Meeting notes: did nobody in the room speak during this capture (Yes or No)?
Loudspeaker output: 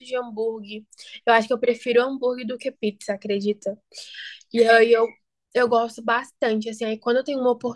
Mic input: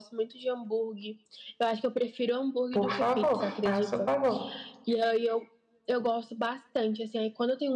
No